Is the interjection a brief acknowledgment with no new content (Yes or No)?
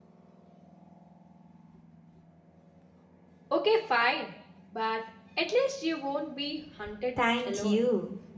No